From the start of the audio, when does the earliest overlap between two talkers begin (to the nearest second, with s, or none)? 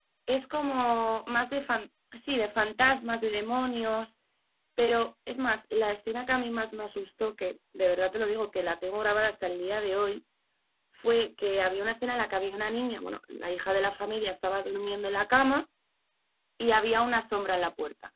none